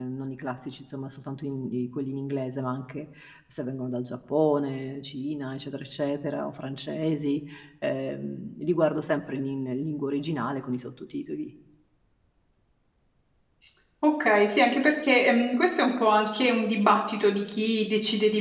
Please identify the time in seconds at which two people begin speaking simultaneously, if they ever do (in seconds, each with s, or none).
none